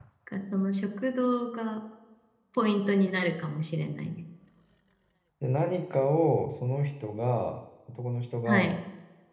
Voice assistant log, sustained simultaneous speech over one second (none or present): none